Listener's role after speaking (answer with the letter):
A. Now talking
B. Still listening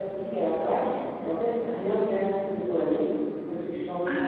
B